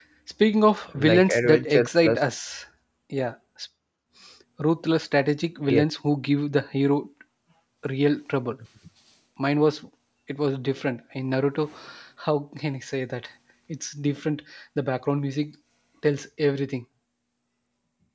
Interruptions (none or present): present